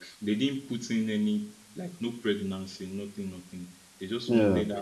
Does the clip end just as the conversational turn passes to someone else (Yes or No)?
No